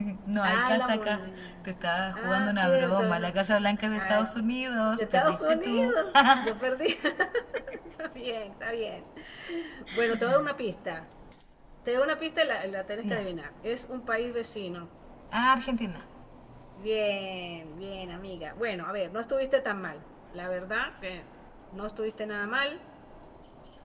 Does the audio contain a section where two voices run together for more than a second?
Yes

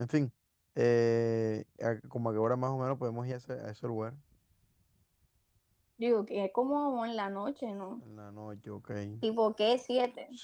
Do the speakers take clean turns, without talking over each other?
Yes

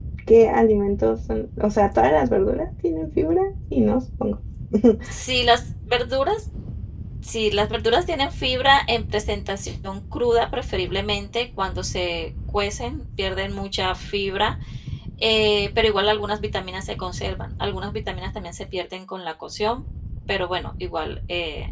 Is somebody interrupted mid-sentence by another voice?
No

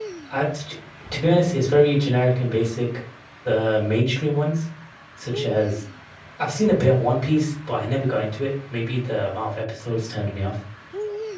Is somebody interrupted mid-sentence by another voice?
No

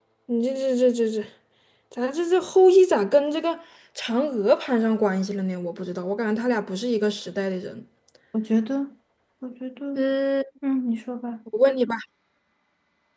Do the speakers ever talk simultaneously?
No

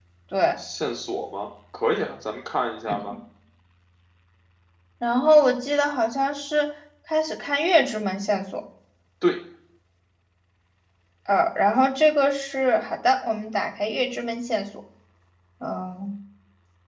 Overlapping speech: No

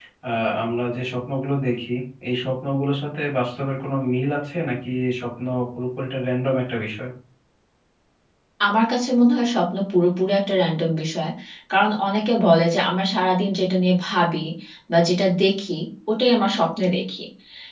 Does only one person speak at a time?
Yes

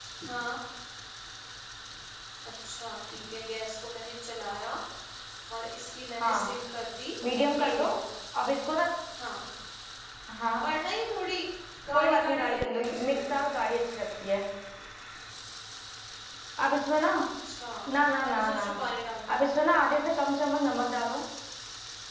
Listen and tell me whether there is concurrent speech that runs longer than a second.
Yes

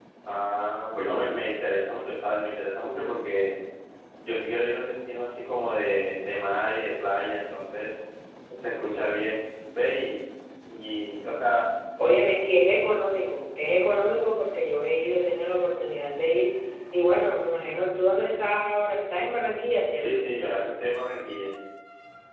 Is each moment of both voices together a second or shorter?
Yes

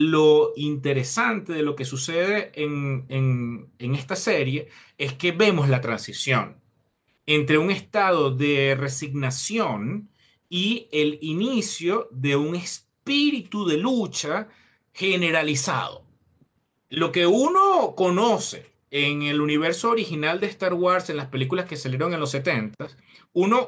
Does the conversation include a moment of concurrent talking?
No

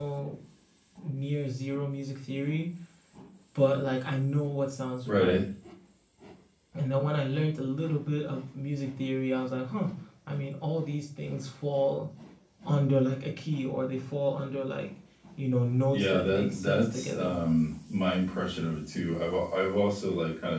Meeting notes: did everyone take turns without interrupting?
No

